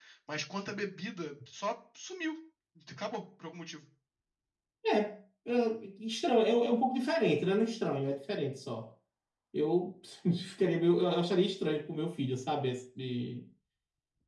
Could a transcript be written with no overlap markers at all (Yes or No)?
Yes